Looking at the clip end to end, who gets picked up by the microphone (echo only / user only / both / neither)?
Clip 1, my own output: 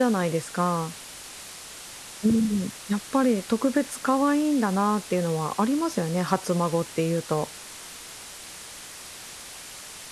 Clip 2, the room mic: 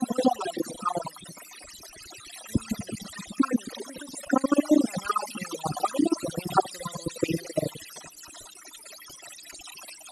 echo only